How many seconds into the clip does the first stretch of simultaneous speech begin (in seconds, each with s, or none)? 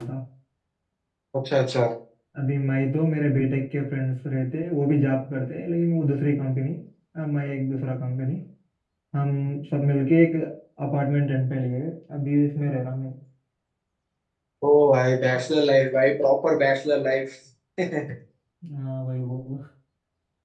none